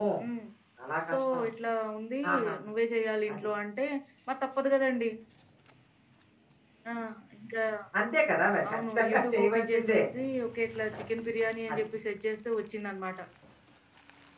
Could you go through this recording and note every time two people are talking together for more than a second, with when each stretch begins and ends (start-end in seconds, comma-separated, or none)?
8.7-10.1